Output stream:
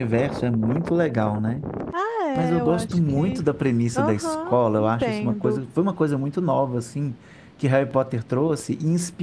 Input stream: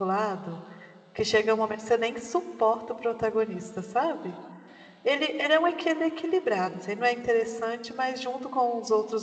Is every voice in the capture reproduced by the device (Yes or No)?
No